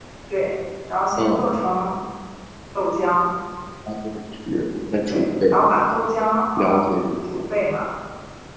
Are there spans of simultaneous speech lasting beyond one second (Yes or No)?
No